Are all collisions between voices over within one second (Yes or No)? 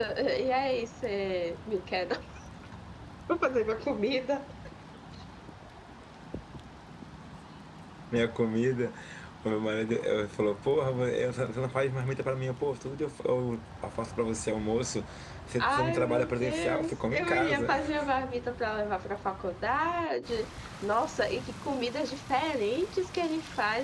No